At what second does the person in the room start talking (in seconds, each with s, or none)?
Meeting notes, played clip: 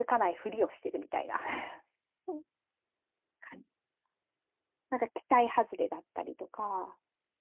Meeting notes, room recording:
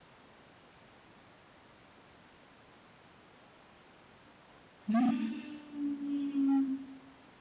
4.9 s